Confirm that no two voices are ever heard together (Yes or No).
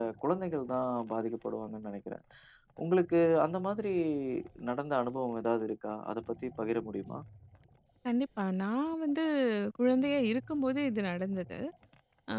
Yes